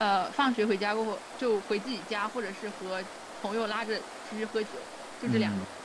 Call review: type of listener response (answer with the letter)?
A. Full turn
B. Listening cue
A